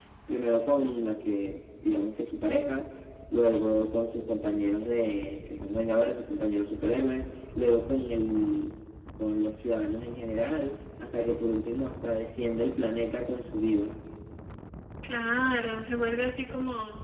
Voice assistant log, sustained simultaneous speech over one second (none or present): none